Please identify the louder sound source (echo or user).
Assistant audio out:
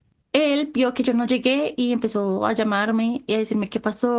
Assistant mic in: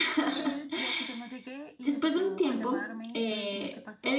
user